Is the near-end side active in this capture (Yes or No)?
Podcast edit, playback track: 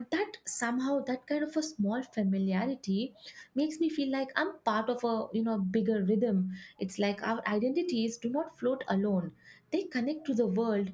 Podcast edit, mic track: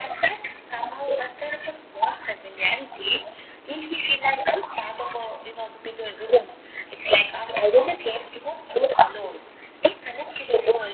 No